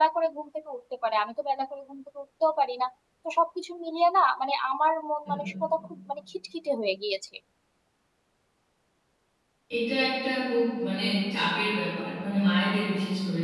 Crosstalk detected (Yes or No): No